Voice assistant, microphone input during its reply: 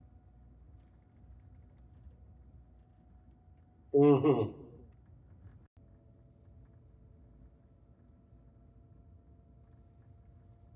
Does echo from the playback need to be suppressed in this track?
No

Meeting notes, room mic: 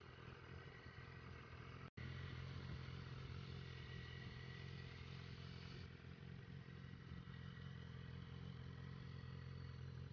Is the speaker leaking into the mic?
No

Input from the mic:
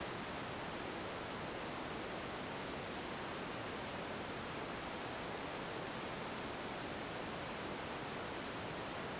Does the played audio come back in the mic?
No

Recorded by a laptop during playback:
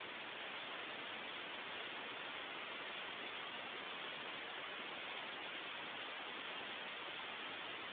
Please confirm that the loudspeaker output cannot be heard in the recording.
Yes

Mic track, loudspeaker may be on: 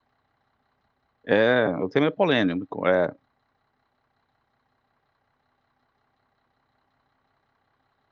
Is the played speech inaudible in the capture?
Yes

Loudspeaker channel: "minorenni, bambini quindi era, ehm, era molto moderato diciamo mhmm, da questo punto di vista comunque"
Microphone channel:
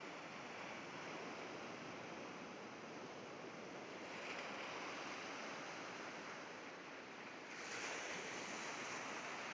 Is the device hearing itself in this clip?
No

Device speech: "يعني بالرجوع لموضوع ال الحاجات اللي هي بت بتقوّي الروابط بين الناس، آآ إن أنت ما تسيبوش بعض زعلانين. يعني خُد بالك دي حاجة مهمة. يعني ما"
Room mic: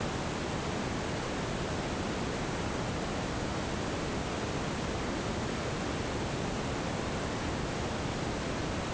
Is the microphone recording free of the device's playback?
Yes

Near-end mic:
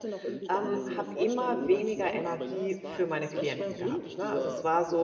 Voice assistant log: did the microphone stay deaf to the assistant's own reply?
No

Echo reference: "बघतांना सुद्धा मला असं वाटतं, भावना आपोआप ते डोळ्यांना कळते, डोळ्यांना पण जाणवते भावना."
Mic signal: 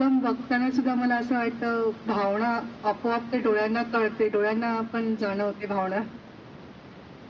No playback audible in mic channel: No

